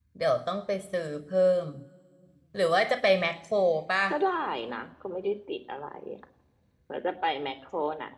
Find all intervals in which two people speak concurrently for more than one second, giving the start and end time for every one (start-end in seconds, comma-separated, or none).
none